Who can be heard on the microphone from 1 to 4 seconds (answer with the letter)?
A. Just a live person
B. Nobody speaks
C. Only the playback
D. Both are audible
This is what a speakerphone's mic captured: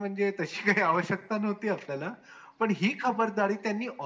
C